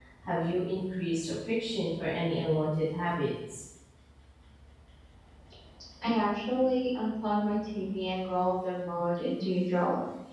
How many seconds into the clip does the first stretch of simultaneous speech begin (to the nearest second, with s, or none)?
none